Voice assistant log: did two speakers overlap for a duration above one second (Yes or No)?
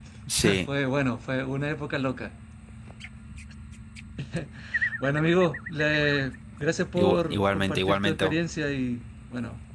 Yes